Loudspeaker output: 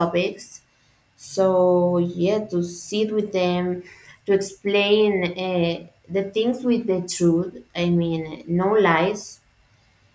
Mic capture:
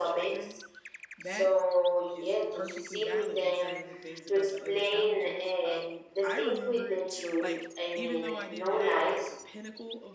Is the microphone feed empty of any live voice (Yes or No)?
No